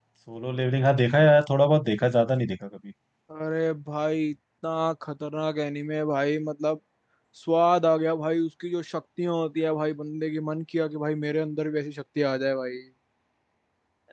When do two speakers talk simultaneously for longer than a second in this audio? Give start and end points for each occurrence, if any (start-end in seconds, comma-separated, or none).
none